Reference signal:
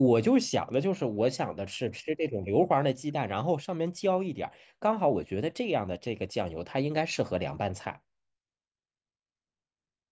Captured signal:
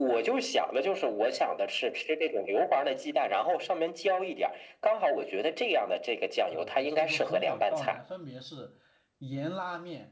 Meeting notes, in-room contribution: present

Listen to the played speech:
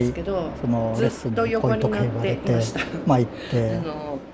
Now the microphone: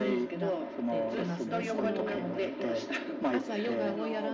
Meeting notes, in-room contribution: present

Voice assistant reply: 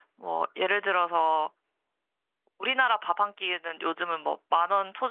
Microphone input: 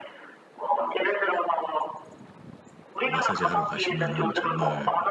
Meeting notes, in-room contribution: present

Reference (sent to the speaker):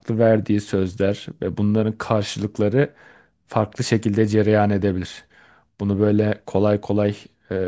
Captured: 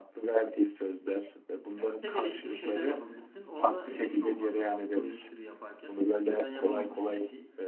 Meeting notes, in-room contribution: present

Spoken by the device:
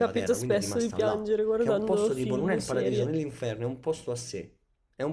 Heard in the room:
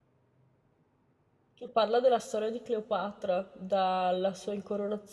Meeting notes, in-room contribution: present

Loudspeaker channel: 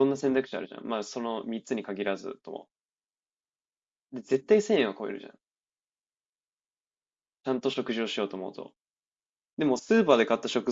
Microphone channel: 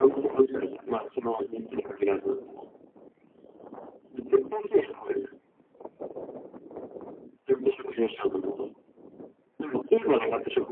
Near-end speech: none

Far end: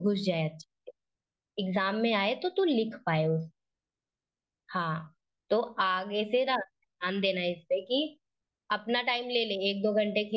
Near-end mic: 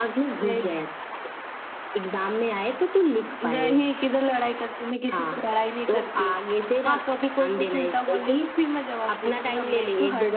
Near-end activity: present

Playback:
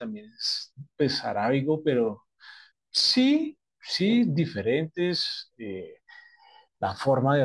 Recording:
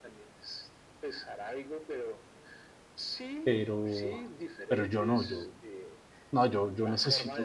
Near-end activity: present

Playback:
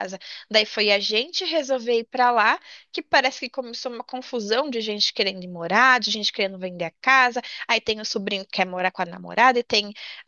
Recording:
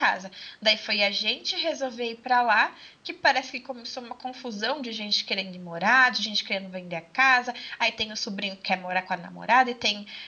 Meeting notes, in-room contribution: none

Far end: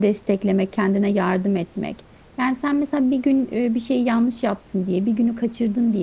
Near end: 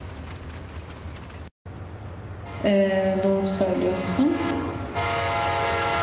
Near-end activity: present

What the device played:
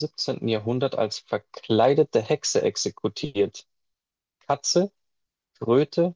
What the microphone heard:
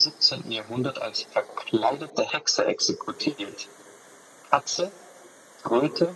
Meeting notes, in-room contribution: none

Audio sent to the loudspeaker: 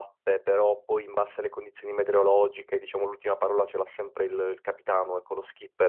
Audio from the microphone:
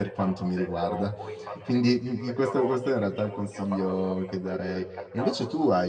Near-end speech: present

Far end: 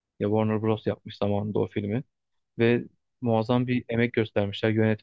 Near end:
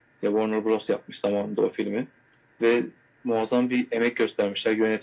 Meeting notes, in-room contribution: none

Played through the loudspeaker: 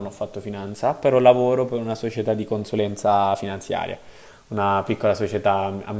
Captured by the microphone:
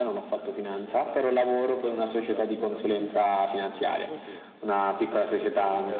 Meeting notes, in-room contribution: present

